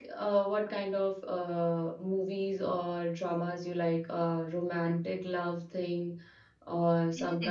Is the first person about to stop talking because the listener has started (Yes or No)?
Yes